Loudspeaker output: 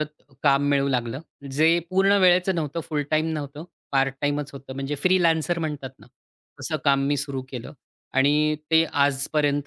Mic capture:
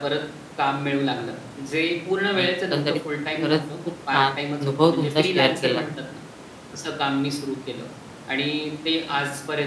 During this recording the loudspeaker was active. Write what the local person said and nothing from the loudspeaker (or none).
आणि एकंदरीत तुम्ही खरंच खूप छान अनुभव तुमचा शेअर केलात.